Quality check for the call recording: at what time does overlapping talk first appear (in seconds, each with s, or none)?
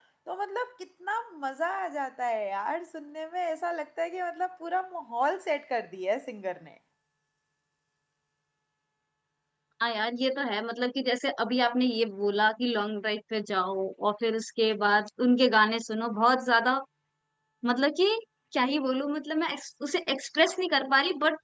none